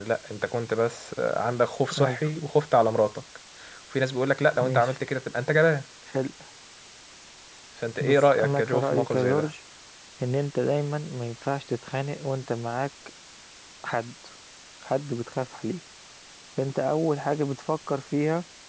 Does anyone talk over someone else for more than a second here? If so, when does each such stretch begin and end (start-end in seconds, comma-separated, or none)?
8.0-9.5